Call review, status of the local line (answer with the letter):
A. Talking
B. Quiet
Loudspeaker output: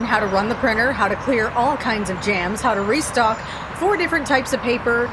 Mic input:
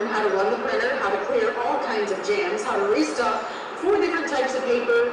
B